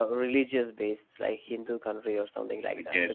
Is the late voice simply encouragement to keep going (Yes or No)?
Yes